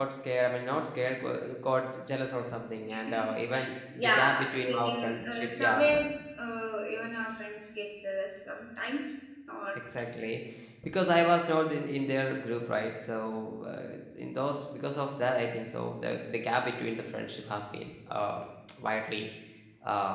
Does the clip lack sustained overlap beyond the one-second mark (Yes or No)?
No